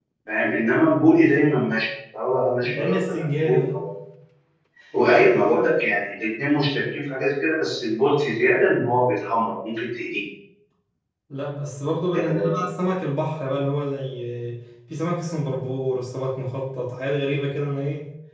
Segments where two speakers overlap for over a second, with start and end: 2.6-3.8

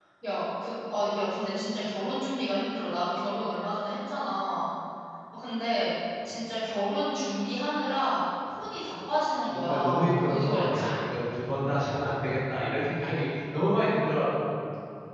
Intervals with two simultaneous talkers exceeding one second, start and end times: 9.4-11.0

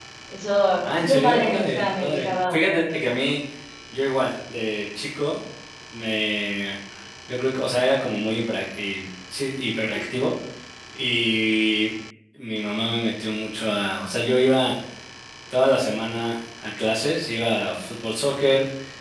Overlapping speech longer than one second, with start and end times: 0.8-3.0

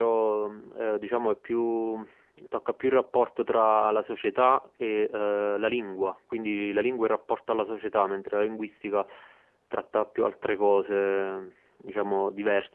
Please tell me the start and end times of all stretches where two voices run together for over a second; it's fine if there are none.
none

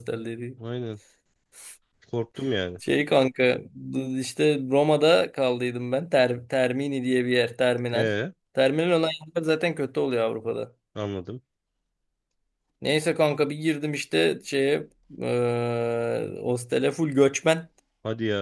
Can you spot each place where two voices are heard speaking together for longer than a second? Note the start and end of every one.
none

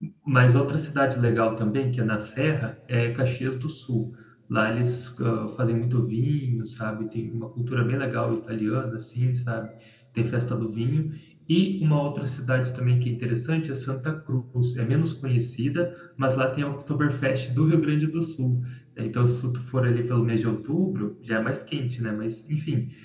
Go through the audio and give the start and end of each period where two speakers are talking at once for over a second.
none

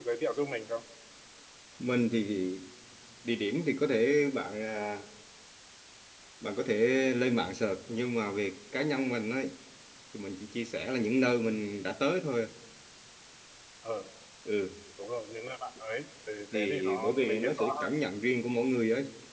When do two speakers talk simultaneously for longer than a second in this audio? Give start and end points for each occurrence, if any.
16.5-17.9

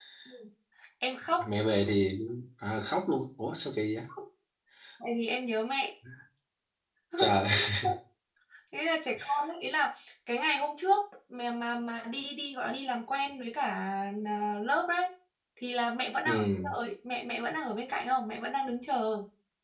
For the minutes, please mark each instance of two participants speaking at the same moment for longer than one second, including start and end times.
none

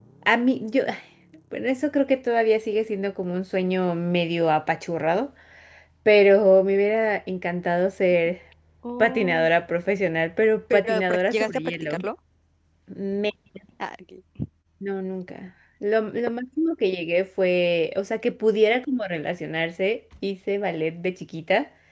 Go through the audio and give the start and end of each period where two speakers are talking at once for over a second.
10.7-12.1

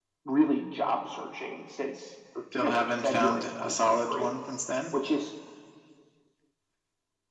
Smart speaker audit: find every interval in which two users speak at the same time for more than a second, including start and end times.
2.6-4.3

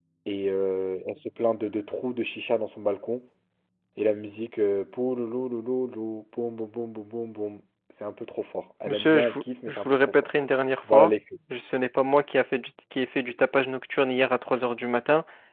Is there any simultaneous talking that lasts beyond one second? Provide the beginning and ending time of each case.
8.8-10.3

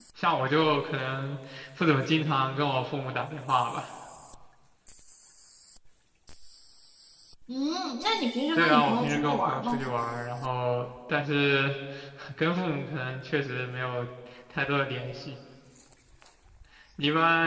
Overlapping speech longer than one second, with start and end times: 8.5-9.8

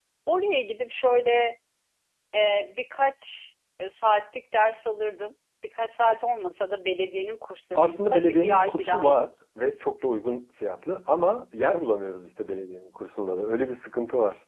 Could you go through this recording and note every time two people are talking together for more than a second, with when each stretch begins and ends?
7.8-9.3

